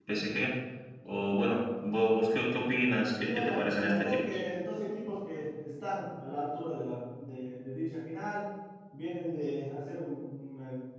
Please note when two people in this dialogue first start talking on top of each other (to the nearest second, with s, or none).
3 s